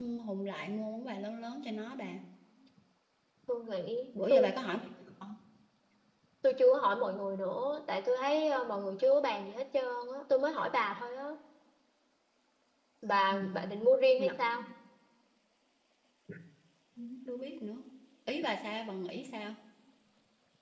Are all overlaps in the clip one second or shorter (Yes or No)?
Yes